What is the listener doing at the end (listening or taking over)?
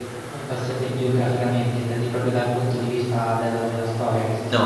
taking over